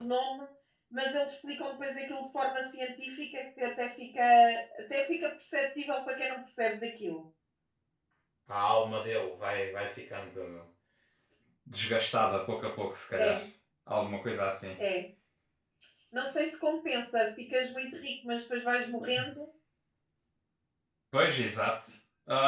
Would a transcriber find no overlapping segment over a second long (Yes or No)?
Yes